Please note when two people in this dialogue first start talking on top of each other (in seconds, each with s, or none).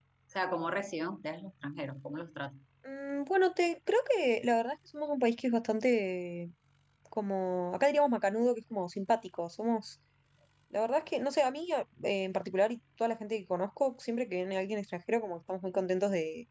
none